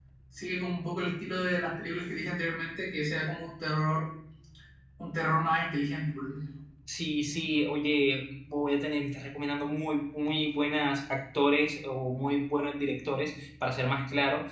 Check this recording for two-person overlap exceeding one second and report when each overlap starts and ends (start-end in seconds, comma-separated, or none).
none